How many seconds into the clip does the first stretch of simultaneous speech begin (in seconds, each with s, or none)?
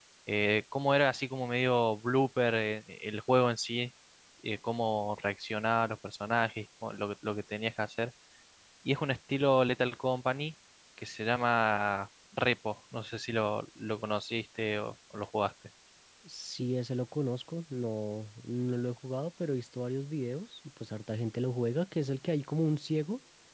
none